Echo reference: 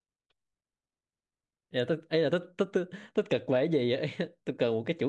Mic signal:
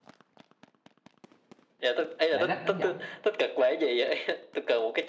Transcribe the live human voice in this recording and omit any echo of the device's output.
lạng lách đánh võng

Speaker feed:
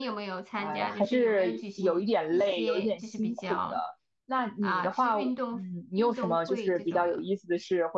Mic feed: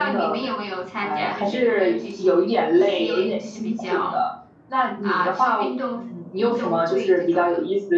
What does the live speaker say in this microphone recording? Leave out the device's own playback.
none

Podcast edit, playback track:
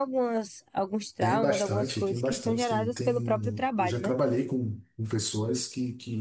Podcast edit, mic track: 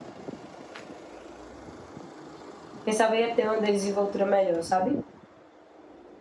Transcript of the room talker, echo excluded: pensava ia ter uma desenvoltura melhor, sabe?

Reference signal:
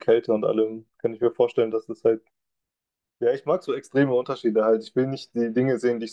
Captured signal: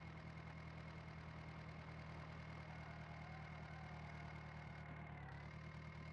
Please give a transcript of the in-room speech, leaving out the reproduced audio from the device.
none

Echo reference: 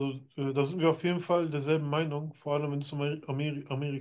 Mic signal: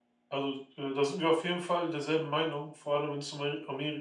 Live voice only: none

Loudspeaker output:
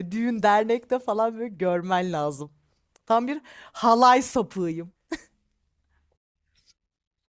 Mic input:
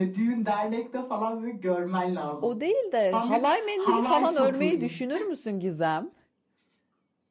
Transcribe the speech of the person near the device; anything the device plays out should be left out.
O değil de halay mendili falan örmeyi düşünür müsün Gizem?

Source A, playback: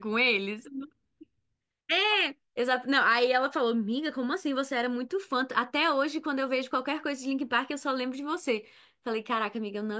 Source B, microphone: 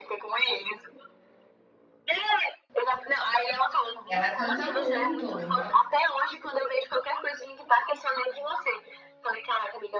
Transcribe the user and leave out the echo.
Ela canta muito, no

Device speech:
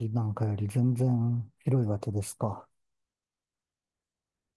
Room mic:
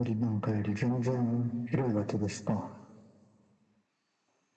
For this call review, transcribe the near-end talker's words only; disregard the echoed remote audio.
none

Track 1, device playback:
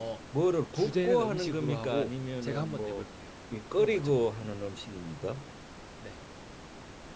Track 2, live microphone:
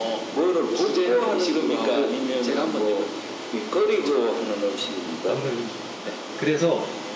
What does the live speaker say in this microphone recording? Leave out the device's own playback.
먹는 음식입니다. 그래서

